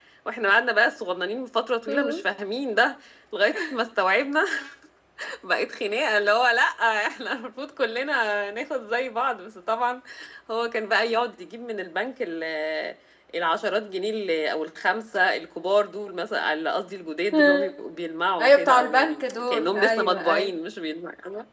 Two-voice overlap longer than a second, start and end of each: 18.4-20.5

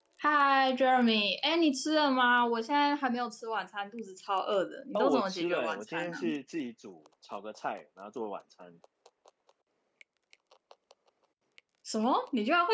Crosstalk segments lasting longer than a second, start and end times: 5.0-6.2

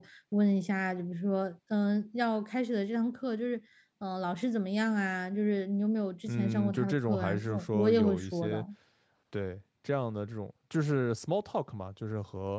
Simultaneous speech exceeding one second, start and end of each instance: 6.3-8.6

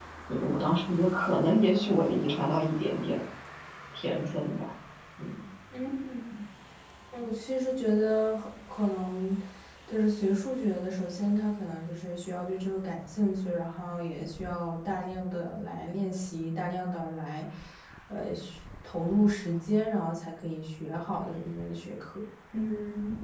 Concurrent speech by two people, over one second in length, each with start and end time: none

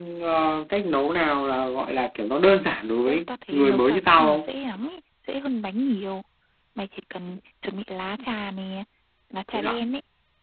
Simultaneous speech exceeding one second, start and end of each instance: 3.1-4.5

